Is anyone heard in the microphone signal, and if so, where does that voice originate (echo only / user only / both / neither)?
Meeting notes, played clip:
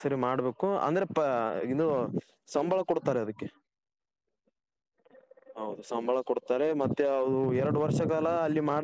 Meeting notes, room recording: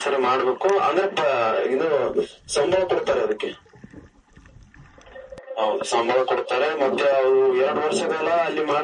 echo only